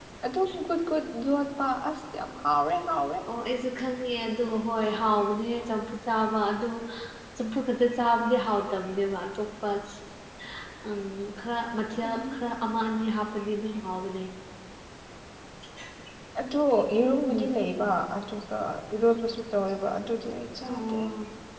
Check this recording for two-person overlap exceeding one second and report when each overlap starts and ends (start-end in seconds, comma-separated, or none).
none